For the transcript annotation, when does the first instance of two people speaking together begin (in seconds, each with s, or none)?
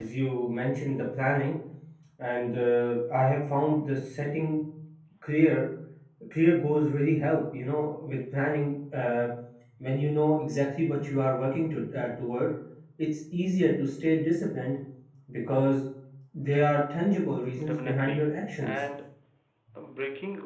17.6 s